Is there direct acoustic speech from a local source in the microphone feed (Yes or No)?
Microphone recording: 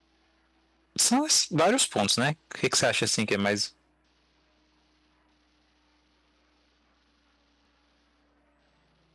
Yes